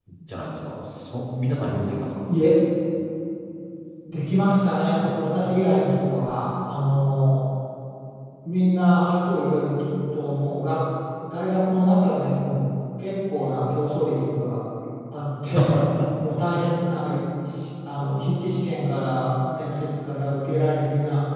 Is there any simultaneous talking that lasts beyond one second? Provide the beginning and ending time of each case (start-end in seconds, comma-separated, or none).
none